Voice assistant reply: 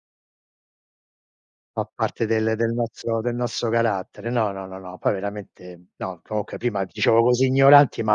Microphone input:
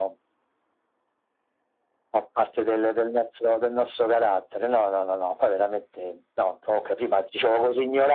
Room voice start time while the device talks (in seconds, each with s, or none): none